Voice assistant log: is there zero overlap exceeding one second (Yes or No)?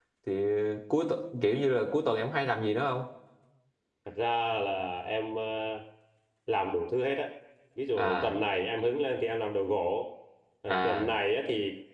Yes